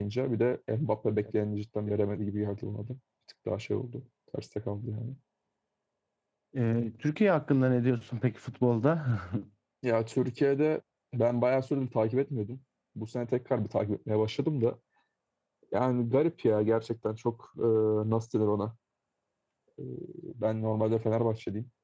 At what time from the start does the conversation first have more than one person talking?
none

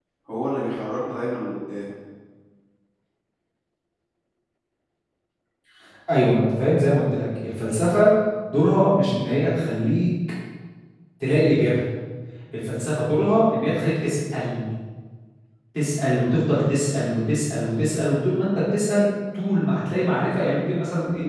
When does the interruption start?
none

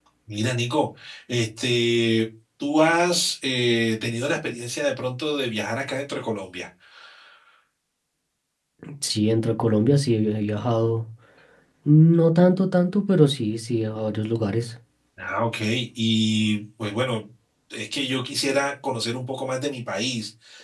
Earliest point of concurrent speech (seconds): none

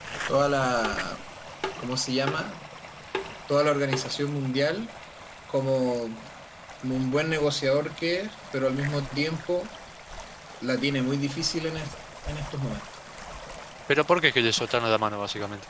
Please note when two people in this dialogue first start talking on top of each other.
none

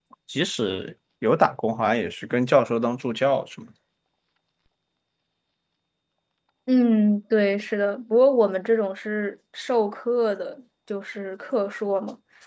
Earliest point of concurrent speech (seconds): none

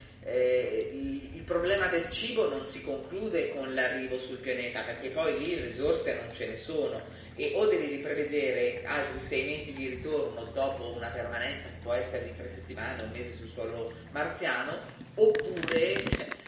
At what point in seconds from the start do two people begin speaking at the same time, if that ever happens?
none

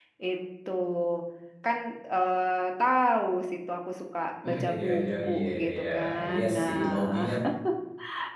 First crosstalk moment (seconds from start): 4 s

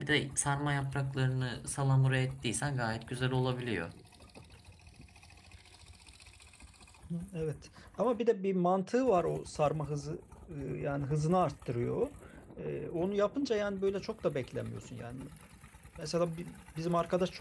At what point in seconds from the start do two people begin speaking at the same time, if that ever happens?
none

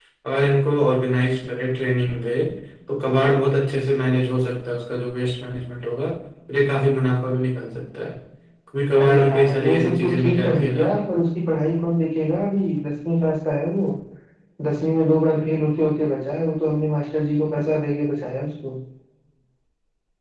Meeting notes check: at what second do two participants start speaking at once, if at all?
9 s

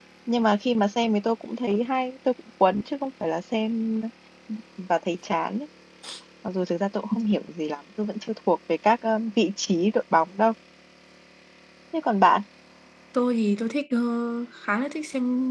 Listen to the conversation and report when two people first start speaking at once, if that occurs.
none

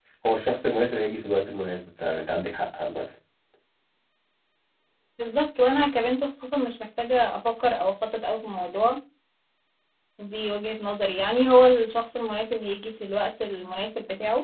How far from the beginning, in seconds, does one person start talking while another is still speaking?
none

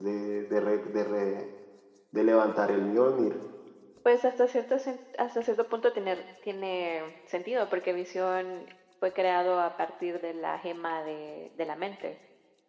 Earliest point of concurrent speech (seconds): none

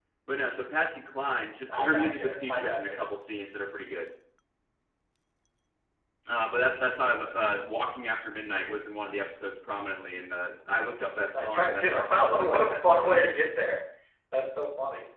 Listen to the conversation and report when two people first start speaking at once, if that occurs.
2 s

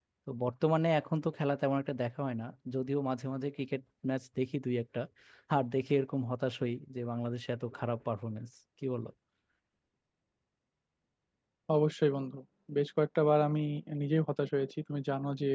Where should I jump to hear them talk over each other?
none

